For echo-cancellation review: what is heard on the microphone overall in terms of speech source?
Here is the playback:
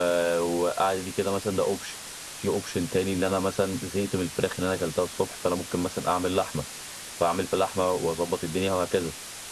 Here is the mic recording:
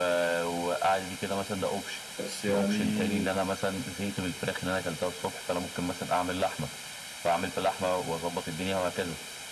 both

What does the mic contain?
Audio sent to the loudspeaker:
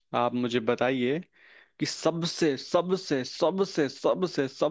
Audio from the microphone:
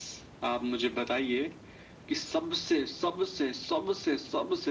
echo only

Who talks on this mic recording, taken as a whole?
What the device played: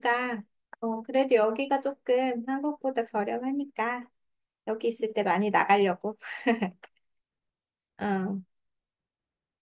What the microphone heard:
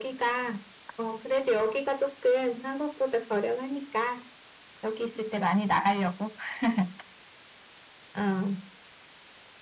echo only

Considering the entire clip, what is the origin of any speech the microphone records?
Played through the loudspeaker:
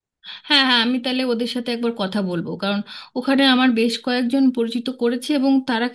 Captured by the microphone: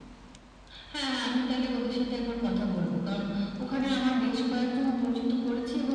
echo only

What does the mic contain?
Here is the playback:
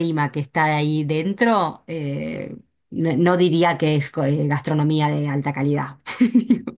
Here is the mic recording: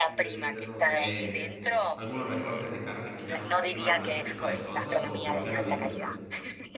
both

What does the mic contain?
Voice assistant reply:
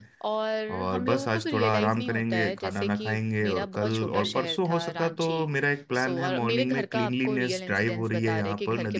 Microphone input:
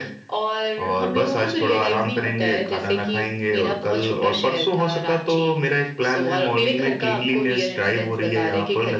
echo only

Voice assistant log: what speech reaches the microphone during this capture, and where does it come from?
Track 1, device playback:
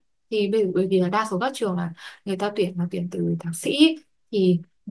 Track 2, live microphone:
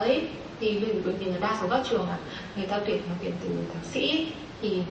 echo only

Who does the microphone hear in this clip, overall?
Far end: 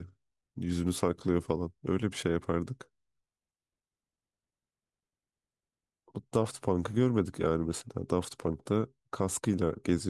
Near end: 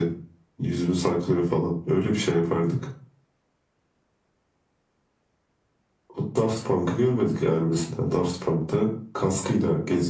echo only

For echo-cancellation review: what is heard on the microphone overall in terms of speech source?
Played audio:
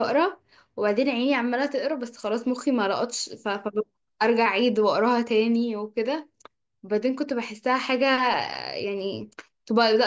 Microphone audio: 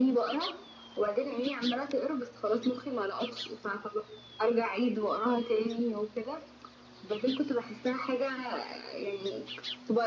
echo only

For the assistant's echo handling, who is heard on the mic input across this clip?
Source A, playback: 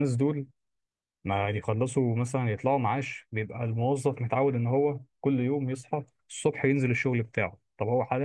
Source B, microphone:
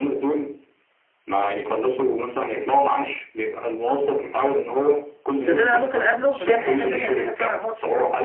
both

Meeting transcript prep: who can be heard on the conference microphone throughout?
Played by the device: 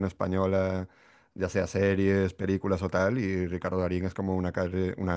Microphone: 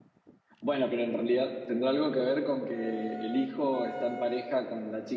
user only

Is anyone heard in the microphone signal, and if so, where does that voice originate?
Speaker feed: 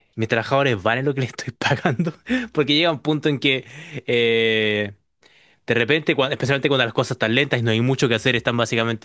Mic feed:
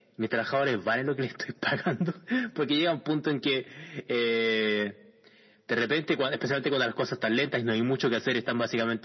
echo only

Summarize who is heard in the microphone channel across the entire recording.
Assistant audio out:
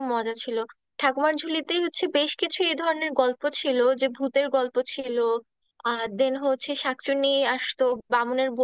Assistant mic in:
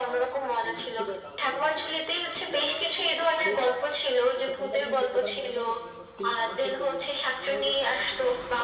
both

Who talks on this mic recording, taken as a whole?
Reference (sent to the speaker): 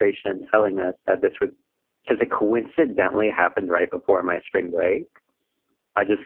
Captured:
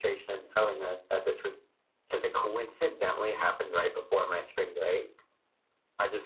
echo only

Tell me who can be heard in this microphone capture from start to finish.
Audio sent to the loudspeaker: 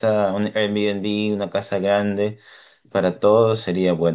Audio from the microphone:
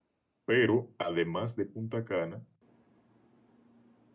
user only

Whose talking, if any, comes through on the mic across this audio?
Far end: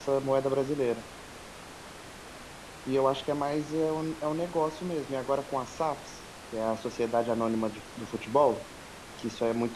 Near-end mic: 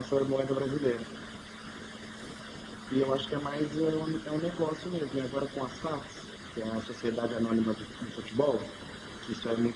echo only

